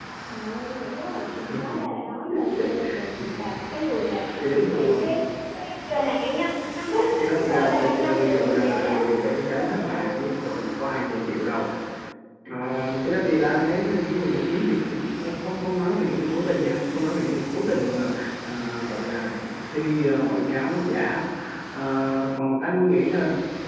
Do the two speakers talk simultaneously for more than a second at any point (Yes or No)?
Yes